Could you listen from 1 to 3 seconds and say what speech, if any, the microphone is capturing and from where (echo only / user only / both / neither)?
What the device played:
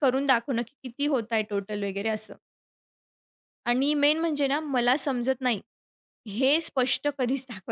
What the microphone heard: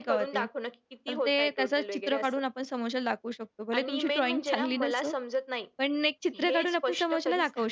both